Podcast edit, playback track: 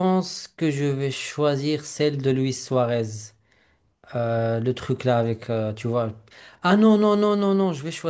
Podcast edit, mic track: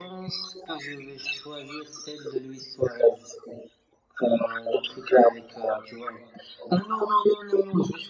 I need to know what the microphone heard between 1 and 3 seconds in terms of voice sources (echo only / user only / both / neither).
echo only